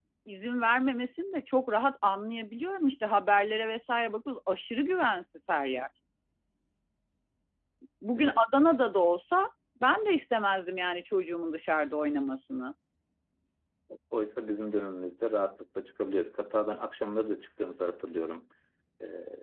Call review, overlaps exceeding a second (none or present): none